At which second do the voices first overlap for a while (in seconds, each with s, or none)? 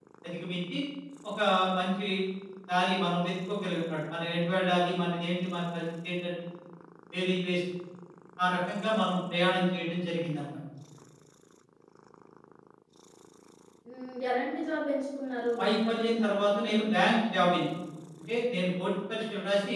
15.6 s